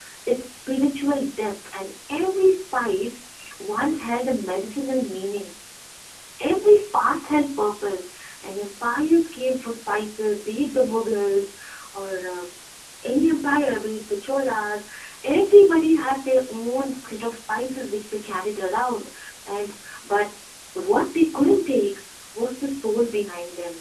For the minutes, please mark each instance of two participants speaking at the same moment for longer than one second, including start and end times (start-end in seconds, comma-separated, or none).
none